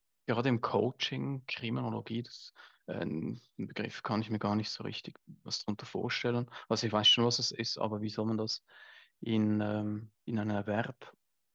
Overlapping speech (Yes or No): No